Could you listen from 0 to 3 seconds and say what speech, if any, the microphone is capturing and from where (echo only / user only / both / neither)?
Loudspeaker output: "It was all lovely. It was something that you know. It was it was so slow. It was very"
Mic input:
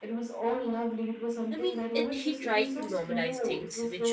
both